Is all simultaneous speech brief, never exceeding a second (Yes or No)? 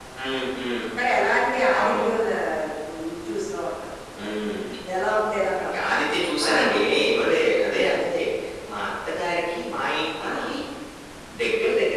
Yes